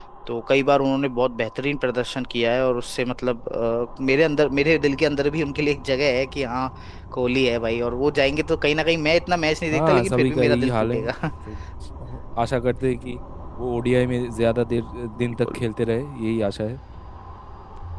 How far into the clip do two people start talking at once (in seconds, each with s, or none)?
9.7 s